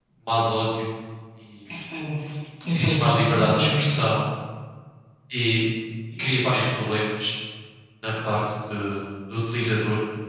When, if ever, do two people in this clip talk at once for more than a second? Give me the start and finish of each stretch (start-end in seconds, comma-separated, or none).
2.7-4.1